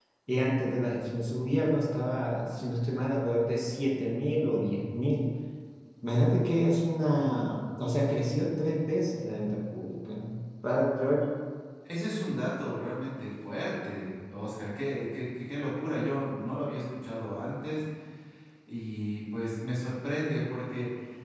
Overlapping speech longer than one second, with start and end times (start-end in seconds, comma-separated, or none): none